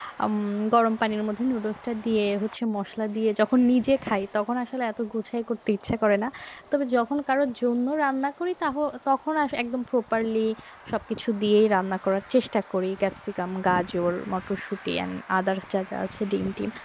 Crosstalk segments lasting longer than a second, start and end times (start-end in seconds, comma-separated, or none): none